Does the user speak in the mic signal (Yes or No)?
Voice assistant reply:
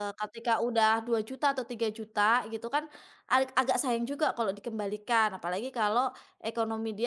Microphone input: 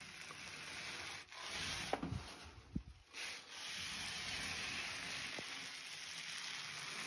No